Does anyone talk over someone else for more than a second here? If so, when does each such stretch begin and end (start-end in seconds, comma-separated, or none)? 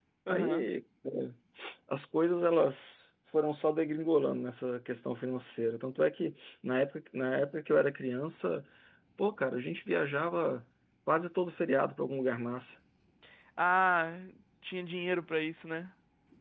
none